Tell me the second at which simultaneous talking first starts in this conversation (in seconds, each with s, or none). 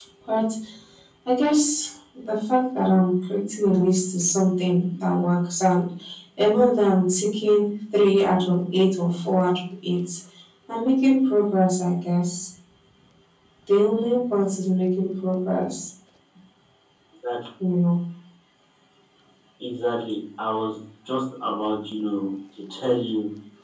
none